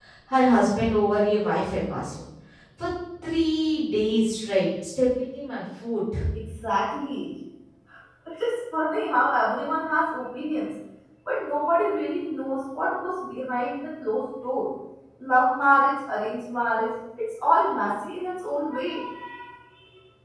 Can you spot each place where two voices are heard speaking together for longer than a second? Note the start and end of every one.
none

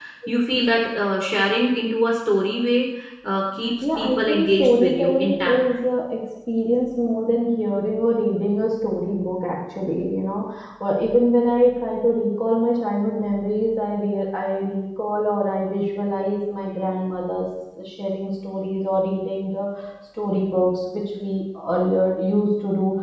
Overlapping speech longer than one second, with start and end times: 4.0-5.6

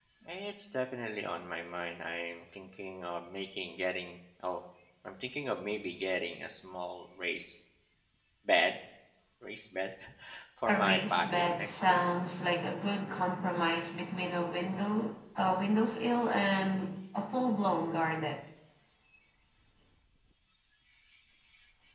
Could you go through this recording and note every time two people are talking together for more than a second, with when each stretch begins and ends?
10.7-12.1

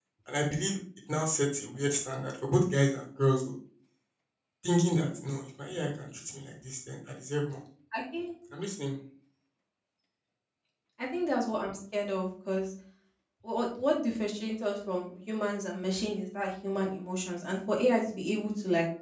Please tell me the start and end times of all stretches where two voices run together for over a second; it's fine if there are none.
none

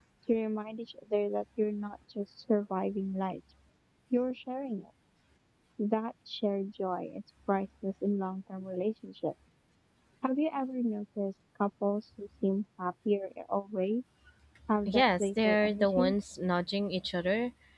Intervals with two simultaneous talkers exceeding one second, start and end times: 14.8-16.1

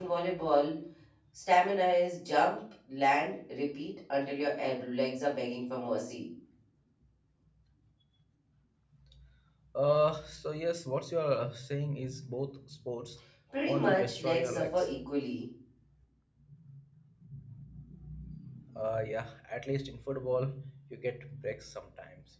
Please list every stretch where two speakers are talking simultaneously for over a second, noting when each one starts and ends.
13.6-15.0

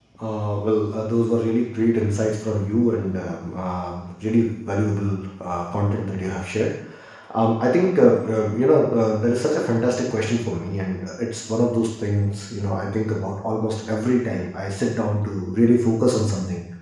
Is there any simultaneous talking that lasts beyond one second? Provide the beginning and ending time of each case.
none

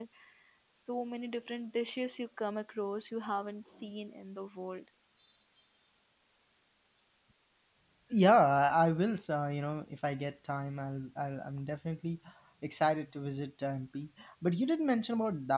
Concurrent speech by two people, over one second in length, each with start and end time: none

